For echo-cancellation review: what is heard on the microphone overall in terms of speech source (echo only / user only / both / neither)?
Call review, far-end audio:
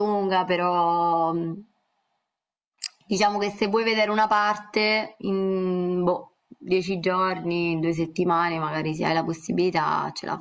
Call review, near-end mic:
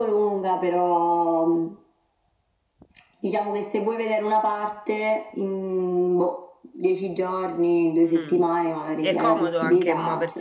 both